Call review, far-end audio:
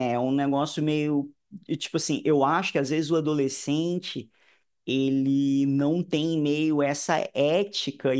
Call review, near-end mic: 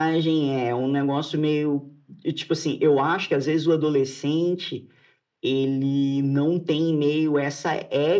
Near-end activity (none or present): none